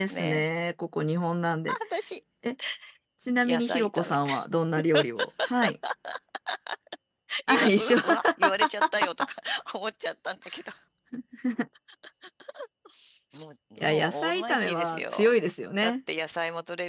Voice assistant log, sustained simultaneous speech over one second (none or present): present